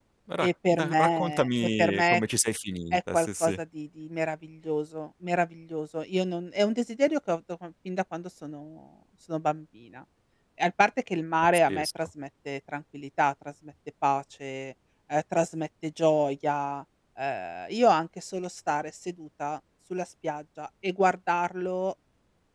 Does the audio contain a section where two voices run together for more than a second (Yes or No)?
Yes